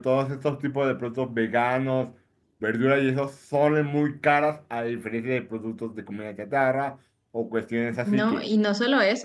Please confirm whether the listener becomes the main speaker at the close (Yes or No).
Yes